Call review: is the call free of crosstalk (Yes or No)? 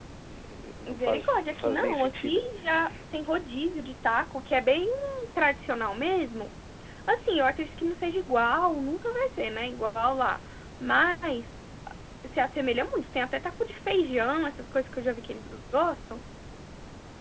No